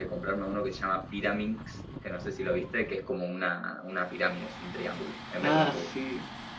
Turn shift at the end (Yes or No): Yes